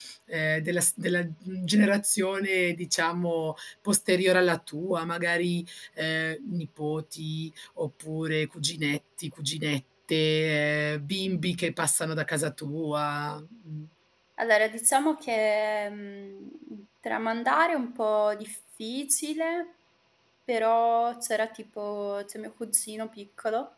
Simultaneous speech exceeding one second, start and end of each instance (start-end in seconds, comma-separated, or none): none